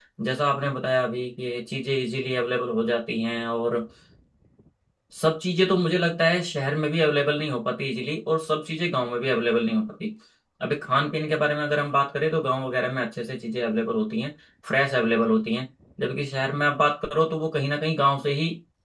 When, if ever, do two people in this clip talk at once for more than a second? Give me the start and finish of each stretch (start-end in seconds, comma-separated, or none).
none